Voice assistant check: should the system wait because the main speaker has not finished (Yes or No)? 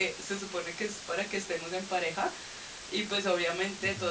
Yes